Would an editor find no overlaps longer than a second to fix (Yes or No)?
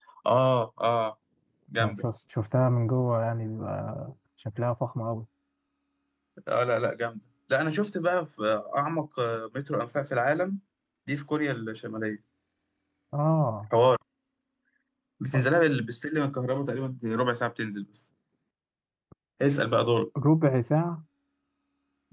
Yes